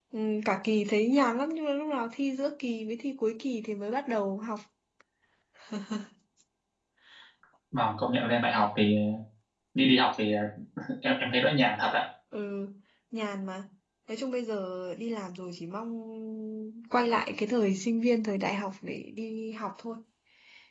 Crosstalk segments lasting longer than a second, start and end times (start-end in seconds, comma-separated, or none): none